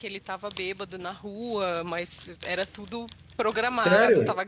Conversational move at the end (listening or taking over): listening